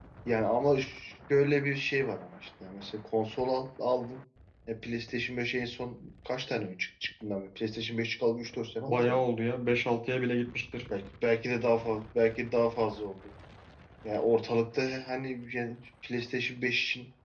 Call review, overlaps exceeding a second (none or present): none